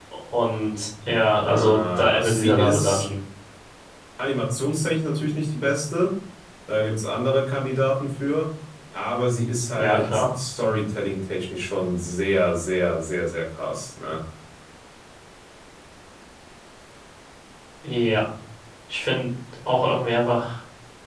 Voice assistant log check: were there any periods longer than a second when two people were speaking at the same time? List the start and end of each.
1.4-3.0

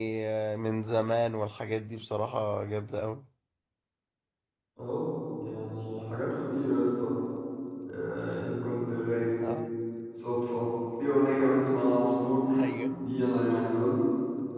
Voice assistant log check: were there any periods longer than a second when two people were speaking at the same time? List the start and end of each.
none

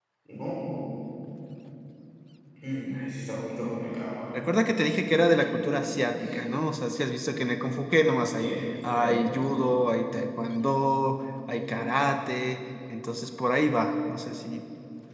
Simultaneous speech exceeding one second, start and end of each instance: none

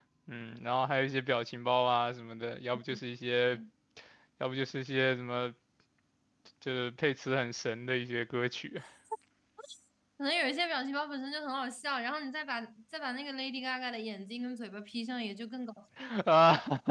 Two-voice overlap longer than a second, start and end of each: none

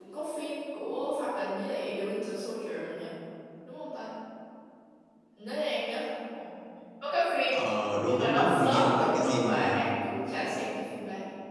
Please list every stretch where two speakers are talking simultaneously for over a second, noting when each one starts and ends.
8.1-9.8

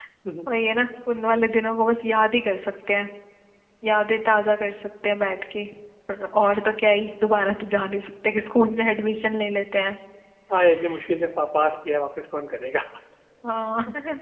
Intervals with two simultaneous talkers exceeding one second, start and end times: none

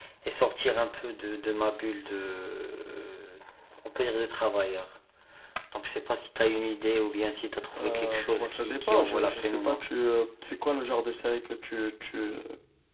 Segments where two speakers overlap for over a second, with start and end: 7.8-9.8

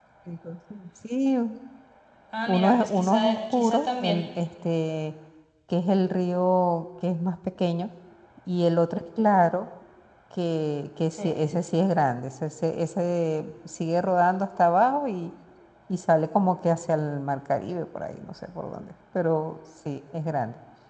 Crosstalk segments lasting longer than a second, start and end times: 2.5-4.2

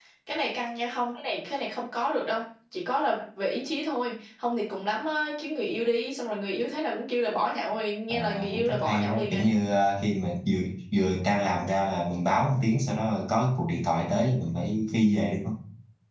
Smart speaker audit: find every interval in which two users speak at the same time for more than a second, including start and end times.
8.1-9.4

